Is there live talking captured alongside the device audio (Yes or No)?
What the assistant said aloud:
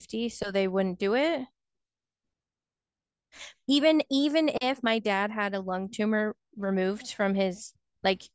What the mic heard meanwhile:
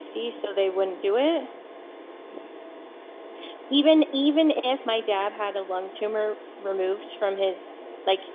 No